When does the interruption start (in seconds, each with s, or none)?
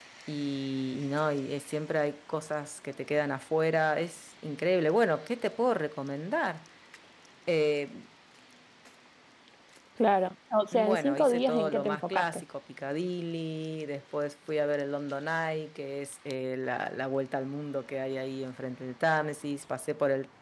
10.7 s